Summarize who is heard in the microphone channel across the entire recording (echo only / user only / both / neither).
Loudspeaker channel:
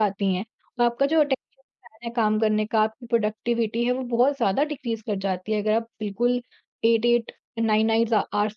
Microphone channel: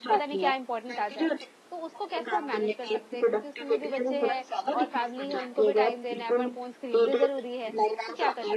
both